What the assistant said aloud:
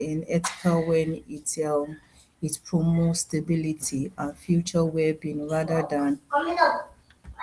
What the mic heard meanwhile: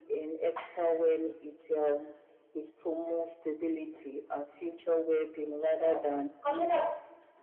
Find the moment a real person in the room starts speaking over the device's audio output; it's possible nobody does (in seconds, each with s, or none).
none